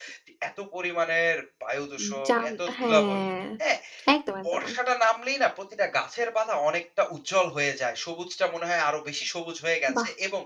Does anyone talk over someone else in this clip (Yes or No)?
Yes